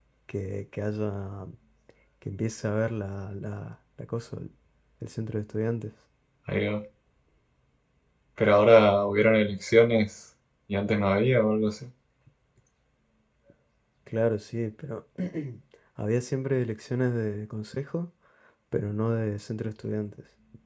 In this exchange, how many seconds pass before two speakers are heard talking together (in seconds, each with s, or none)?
none